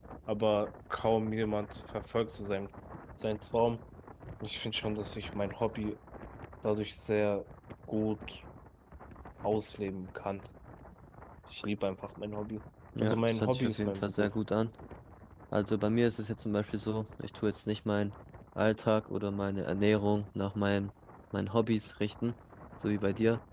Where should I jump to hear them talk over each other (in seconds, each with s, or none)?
13.0 s